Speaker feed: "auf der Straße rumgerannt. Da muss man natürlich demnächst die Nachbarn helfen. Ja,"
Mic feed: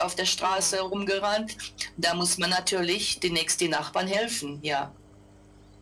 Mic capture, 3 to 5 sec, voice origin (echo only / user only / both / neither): echo only